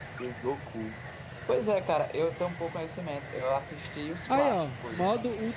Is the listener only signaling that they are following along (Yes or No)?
No